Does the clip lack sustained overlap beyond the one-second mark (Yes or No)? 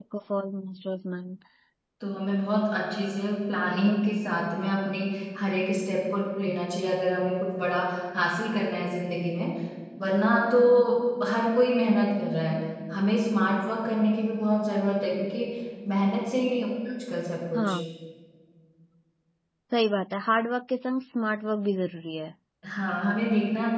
Yes